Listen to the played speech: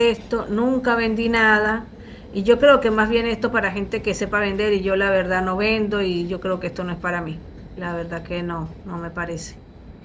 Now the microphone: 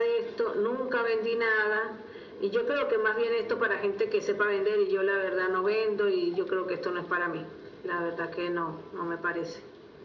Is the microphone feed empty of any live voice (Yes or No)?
Yes